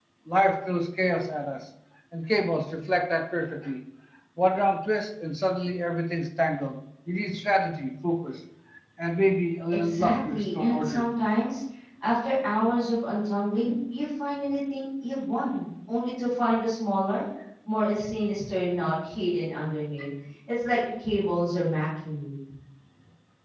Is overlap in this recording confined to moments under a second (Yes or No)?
No